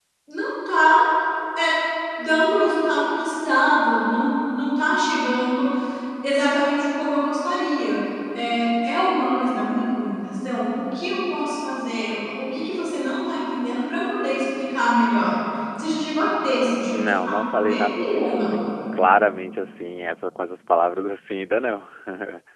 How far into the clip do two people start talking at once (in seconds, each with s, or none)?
16.9 s